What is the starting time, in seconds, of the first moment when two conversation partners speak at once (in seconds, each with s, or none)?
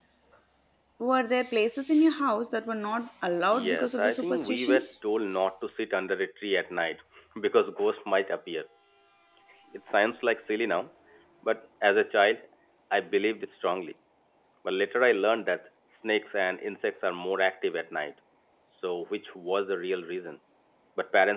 3.5 s